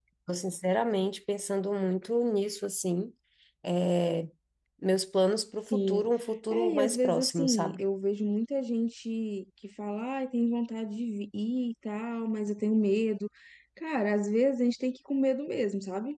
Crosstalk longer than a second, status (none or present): present